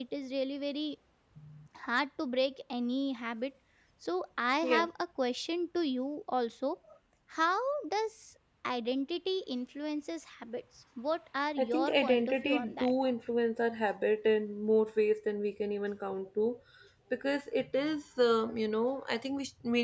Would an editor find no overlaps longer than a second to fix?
No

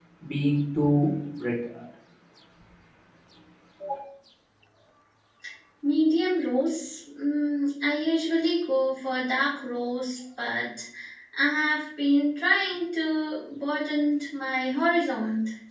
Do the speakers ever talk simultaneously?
No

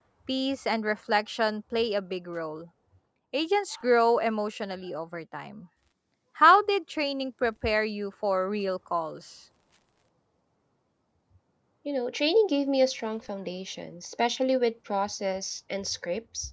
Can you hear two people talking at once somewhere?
No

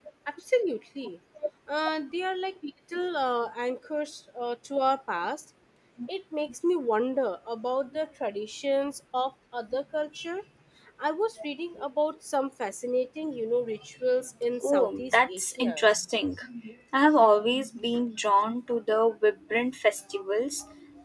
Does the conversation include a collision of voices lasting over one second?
Yes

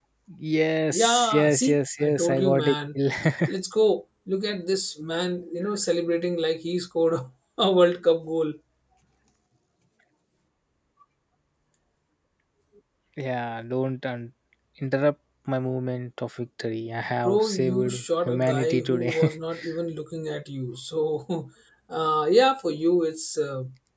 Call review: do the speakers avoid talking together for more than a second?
No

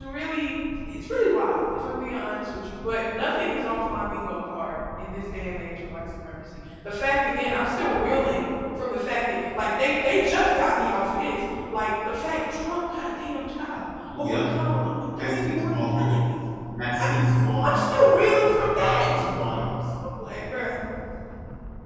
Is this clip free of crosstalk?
No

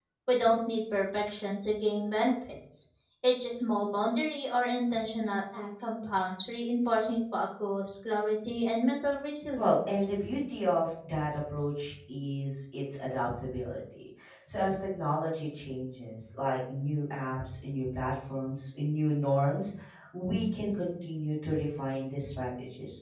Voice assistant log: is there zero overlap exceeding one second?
Yes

